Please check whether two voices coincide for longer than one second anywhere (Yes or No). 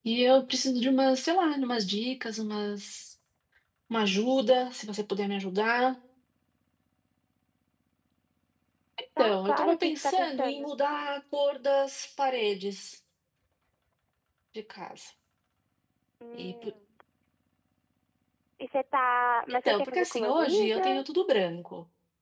Yes